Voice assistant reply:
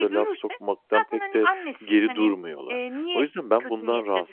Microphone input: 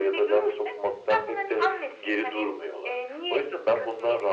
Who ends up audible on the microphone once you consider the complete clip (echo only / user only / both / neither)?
echo only